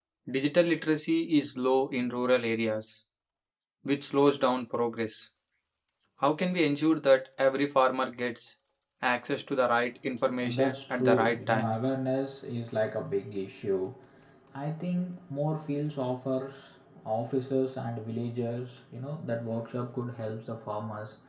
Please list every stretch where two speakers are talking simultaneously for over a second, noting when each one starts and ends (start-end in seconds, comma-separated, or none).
10.4-11.7